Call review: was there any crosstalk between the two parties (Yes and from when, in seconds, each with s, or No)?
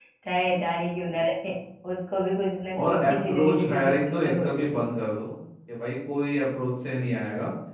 Yes, from 2.8 s